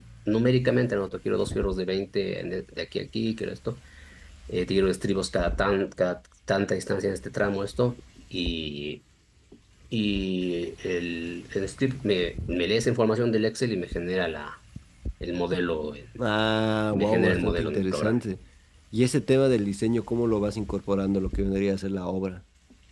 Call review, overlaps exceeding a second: present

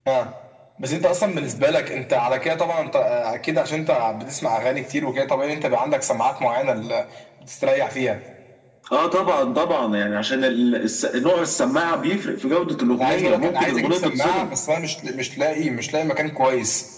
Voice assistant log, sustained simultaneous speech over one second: present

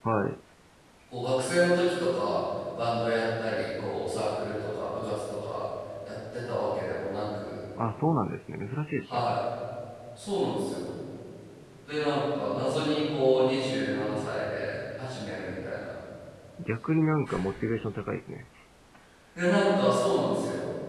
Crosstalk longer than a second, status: none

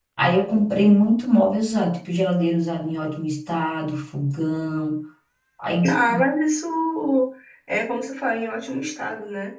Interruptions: none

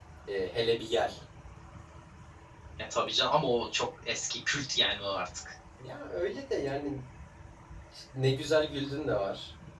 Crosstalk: none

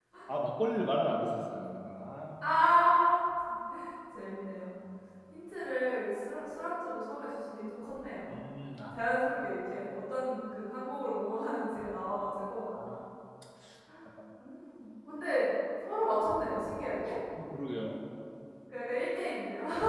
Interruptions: none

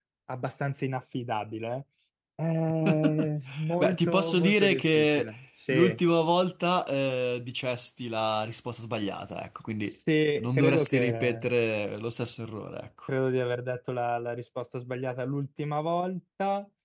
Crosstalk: present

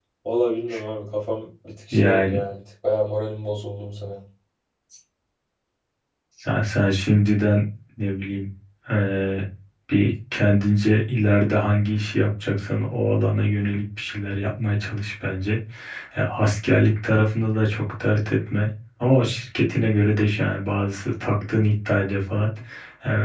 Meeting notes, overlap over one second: none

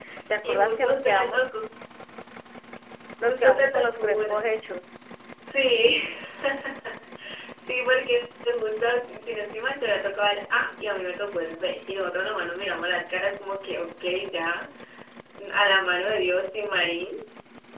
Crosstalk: present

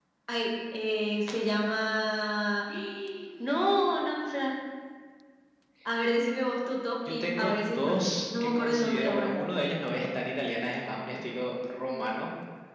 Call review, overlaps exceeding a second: present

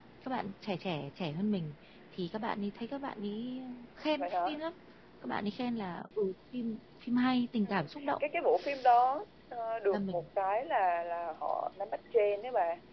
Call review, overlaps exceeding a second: none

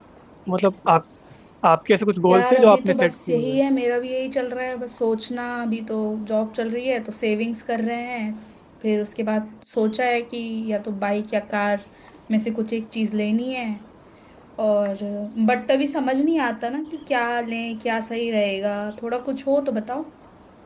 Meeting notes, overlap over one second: present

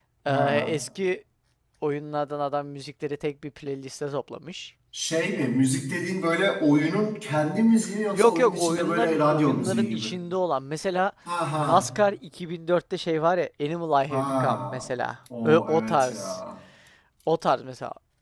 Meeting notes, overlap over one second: present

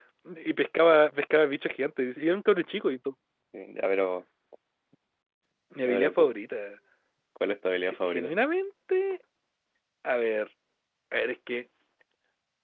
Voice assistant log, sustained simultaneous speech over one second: none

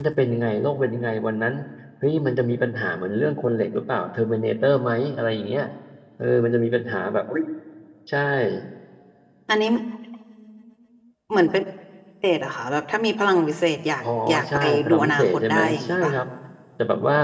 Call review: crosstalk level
present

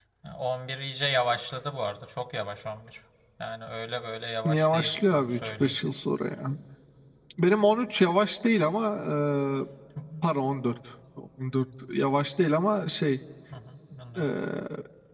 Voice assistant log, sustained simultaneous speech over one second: present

